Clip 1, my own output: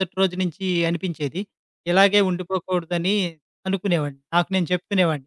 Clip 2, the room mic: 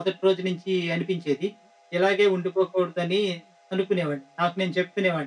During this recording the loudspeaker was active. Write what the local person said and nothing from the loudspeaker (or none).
none